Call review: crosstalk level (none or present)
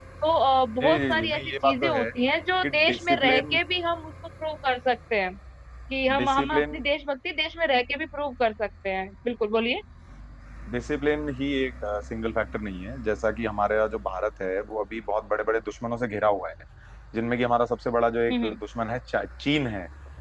present